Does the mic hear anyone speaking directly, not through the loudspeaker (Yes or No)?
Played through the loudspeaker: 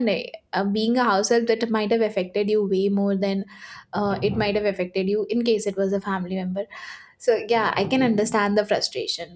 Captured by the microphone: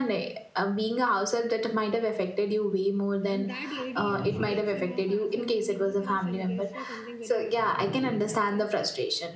Yes